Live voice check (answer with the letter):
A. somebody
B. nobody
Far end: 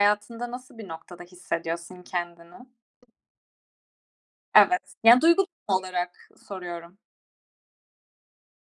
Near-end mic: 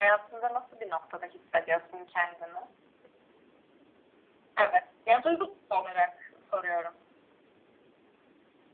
B